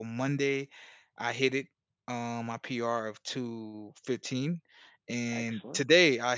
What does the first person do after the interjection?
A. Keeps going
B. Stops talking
A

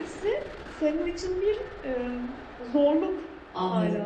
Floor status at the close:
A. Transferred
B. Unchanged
A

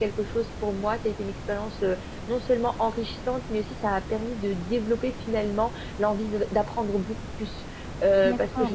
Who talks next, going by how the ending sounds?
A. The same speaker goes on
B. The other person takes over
B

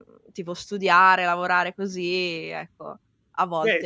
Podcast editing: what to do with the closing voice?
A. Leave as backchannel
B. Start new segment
B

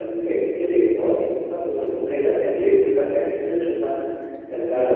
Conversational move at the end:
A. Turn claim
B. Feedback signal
B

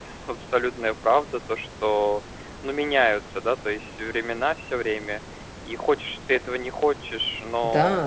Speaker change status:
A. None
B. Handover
B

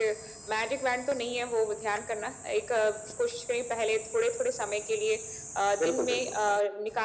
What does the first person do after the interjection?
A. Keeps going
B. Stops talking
A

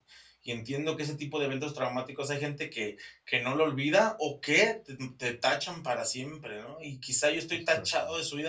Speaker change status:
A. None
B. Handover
A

